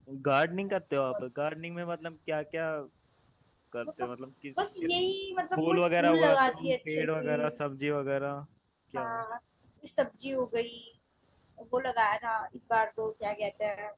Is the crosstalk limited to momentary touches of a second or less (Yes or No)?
No